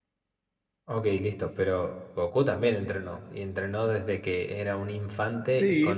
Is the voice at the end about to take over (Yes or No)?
Yes